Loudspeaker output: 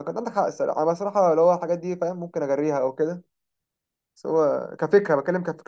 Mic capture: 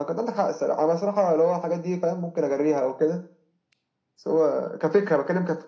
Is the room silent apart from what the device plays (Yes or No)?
Yes